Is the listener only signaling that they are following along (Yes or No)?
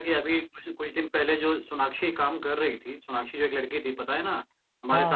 Yes